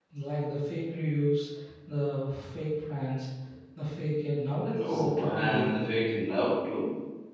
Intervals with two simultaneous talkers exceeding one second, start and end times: 4.8-6.0

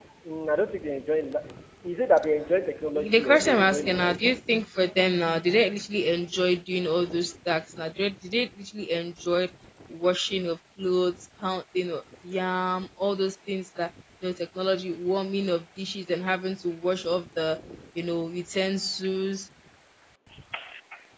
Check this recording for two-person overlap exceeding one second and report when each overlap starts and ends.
2.9-4.2

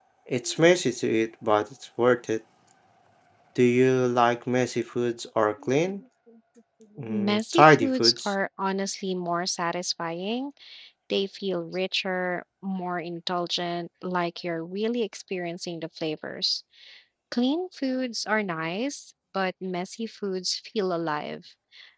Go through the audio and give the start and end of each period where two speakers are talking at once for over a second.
7.1-8.3

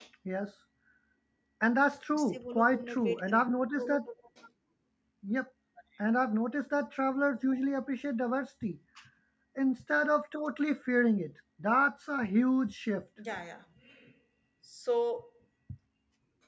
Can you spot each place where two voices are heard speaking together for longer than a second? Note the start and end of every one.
2.2-3.4

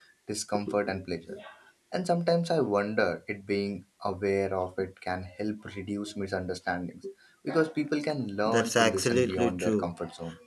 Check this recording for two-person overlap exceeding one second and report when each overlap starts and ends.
8.4-9.9

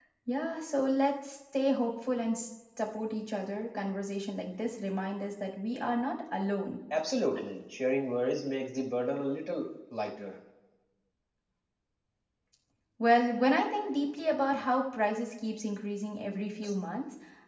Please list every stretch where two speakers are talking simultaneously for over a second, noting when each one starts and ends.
none

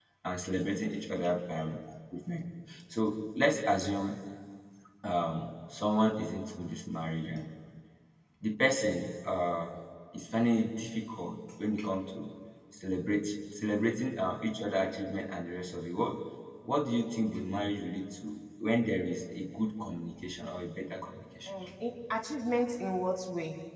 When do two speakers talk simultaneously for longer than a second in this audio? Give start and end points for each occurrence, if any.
none

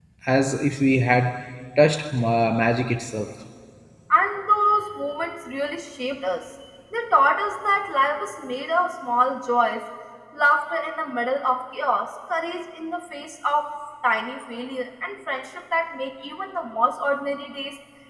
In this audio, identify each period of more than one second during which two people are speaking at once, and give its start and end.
none

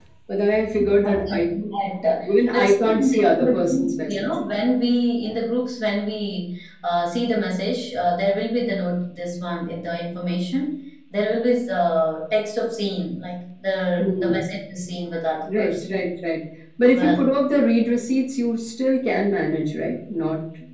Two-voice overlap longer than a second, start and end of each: 2.3-4.1

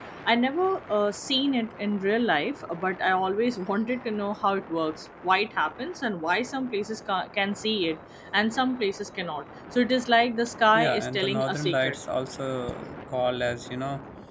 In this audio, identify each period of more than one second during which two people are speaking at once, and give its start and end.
10.7-11.9

